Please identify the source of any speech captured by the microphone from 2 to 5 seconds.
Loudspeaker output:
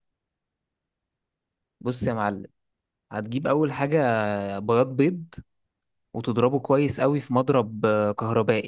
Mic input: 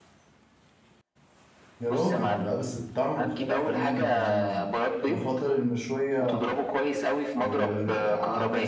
both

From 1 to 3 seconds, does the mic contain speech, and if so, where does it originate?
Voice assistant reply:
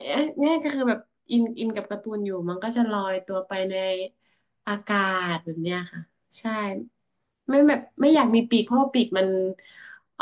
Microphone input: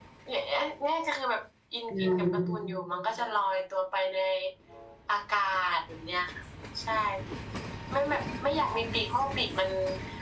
both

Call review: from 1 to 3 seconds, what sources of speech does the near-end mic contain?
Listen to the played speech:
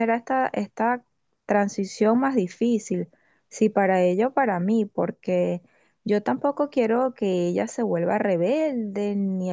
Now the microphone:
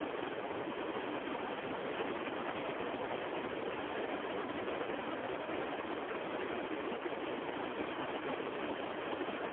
neither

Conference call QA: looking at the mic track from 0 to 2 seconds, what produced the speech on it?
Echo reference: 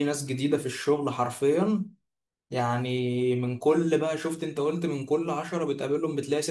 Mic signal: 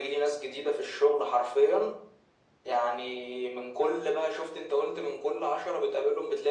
echo only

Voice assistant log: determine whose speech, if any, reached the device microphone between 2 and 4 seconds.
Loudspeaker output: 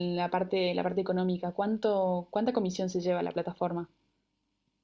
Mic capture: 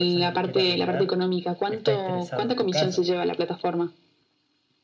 both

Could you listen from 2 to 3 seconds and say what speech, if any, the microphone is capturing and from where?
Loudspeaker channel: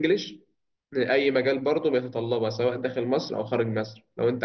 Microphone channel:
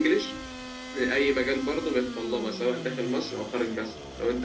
echo only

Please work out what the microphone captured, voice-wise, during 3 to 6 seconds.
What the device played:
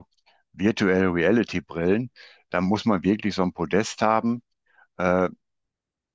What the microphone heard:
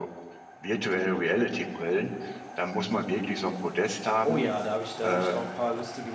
both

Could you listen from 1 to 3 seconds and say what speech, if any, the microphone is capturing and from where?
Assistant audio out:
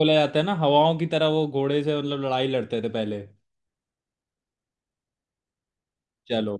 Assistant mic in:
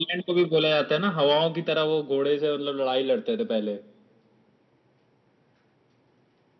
echo only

